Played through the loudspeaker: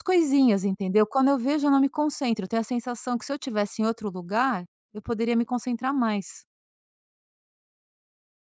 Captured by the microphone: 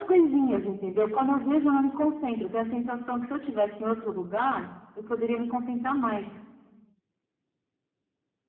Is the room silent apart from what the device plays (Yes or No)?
Yes